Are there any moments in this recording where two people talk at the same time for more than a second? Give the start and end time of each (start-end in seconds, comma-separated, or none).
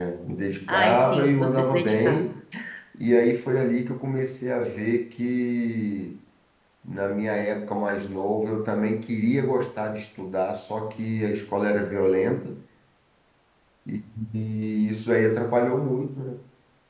0.7-2.2